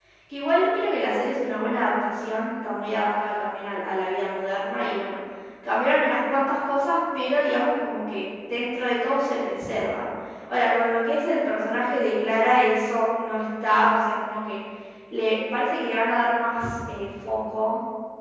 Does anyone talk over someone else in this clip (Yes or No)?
No